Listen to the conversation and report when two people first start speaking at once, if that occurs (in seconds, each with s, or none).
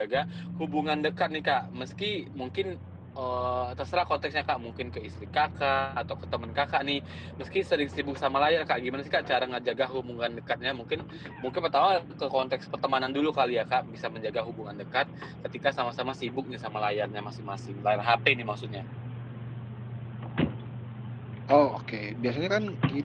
none